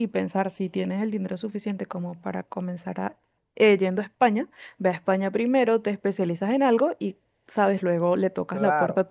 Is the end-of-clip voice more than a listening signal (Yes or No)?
Yes